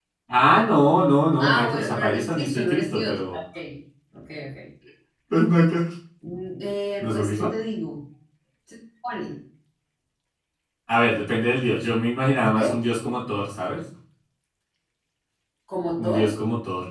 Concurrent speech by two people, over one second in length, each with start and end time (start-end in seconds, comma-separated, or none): 1.4-3.4